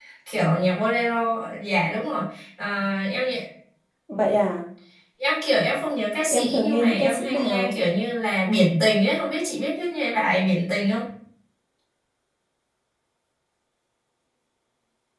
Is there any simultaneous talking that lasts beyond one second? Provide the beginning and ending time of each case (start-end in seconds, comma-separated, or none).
6.3-7.8